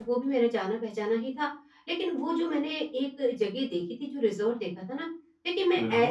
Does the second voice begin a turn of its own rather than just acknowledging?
No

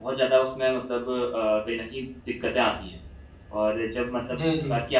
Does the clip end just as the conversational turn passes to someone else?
No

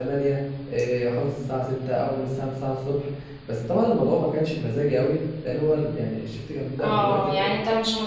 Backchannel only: No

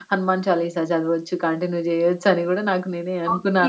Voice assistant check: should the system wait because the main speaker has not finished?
No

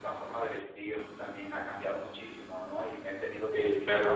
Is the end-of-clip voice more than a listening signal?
No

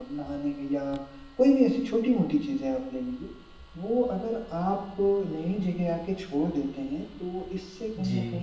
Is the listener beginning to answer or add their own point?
No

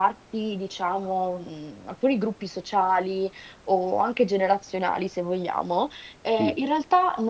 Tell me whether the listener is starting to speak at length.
No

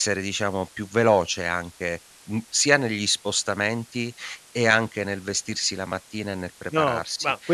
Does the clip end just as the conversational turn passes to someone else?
Yes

